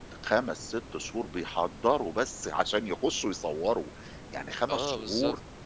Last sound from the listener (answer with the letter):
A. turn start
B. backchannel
B